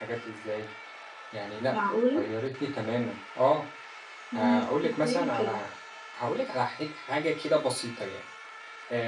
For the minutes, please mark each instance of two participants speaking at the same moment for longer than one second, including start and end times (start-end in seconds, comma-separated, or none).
4.3-5.6